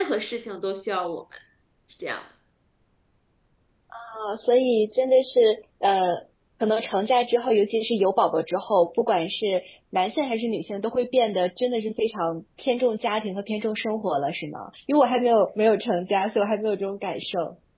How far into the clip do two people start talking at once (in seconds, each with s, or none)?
none